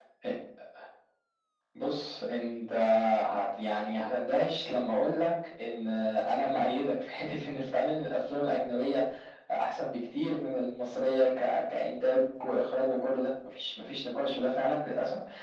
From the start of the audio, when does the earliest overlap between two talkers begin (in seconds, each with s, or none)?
none